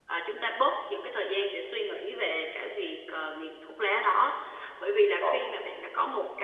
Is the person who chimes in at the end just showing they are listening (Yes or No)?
Yes